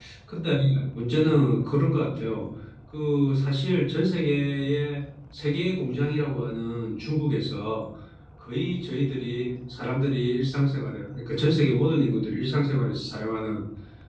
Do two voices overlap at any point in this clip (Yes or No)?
No